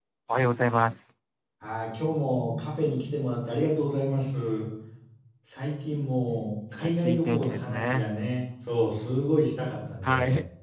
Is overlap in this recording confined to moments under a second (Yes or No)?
No